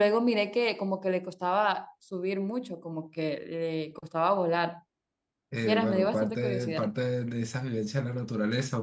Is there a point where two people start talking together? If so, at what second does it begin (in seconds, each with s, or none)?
5.6 s